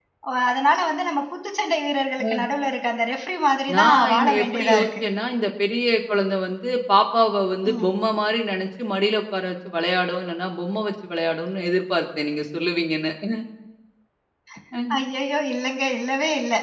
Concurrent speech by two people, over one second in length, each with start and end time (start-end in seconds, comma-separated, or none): 3.7-5.0